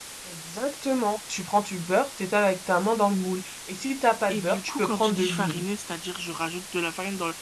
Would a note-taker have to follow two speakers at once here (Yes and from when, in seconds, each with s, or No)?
Yes, from 4.3 s